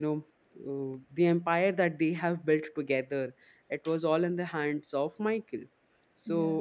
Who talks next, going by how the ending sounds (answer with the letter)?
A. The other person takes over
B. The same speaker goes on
B